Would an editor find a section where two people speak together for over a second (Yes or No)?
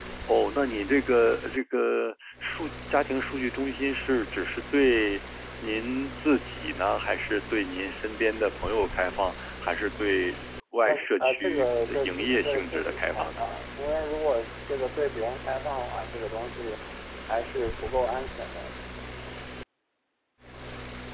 Yes